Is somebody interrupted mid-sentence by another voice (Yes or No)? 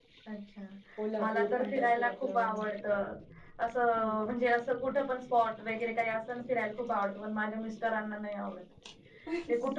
Yes